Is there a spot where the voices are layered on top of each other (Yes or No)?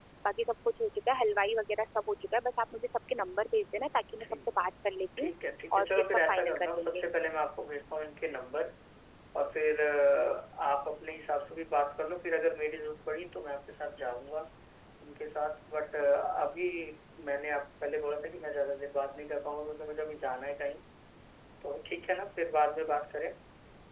Yes